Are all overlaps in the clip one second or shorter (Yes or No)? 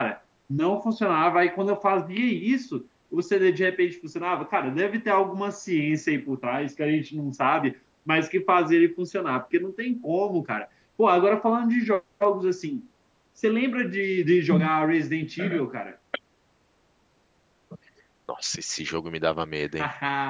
Yes